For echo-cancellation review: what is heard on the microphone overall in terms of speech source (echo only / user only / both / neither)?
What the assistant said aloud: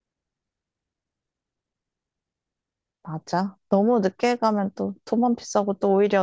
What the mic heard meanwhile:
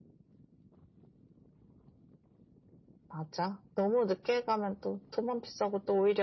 echo only